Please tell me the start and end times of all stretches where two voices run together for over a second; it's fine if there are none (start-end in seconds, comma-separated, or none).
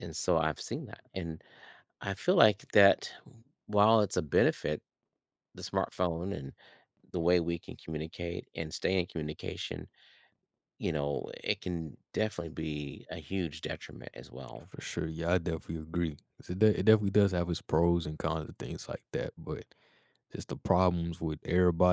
none